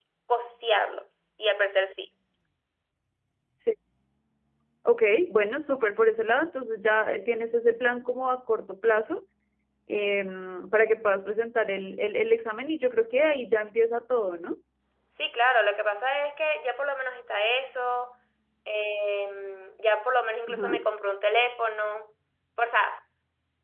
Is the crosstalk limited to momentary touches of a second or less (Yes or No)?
Yes